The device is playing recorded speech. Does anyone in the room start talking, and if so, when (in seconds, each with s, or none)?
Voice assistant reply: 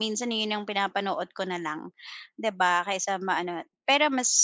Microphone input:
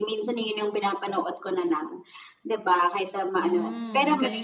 3.4 s